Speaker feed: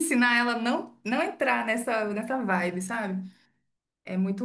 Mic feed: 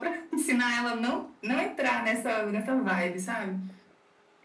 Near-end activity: none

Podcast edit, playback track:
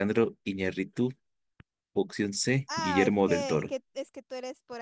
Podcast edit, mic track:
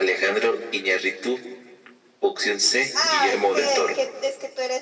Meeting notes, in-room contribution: none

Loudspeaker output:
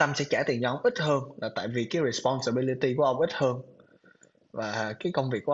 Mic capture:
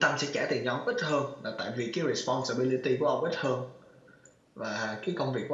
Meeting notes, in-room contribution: none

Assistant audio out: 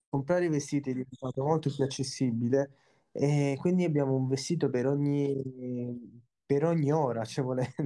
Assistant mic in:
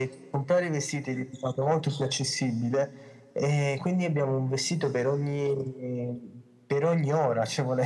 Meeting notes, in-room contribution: none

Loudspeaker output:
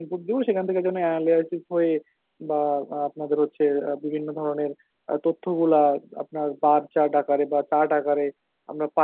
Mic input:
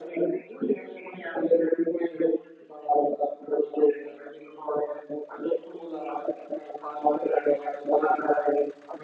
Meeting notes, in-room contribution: none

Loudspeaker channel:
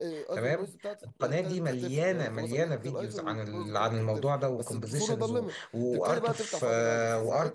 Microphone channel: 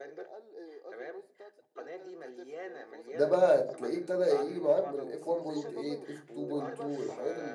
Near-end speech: present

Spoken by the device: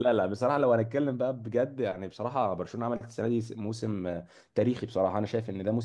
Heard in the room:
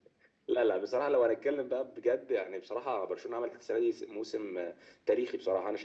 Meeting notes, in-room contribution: none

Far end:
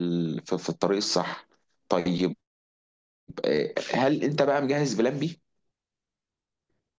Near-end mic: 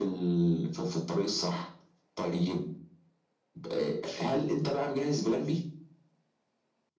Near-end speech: none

